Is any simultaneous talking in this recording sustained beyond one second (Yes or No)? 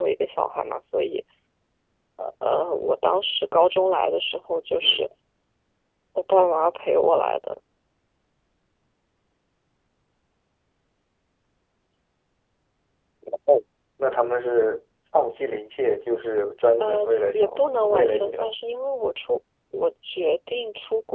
Yes